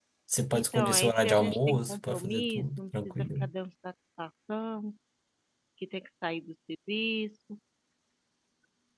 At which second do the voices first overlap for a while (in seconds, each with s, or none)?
0.5 s